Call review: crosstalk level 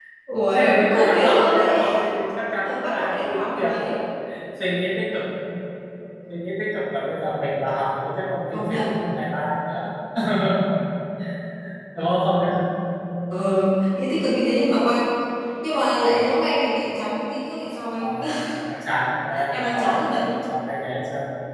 present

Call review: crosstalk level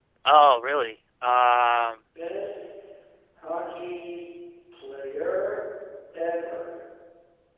none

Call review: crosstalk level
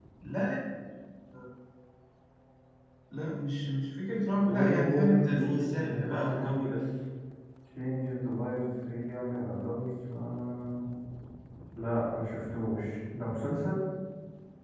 present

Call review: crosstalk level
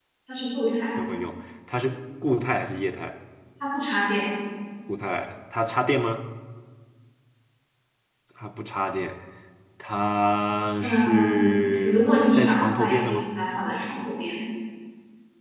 present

